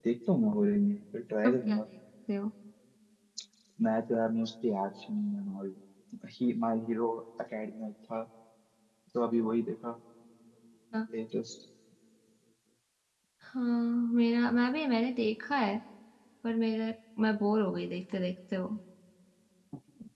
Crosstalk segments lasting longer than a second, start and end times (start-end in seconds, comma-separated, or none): none